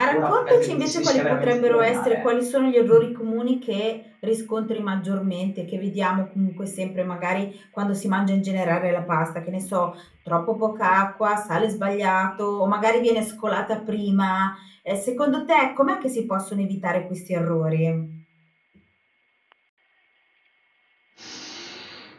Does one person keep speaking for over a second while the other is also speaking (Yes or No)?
Yes